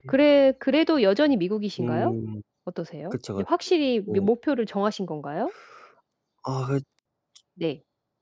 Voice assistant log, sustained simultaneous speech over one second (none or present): none